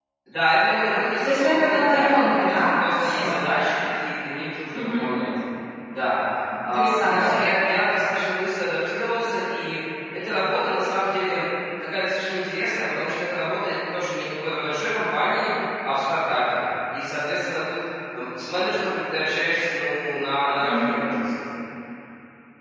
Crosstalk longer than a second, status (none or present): present